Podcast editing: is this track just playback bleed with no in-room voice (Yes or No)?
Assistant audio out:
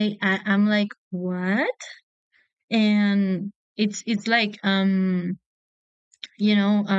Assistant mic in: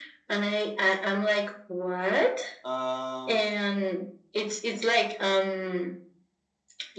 No